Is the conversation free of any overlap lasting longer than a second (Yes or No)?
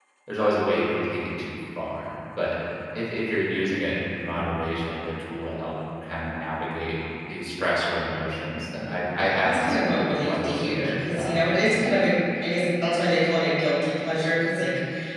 No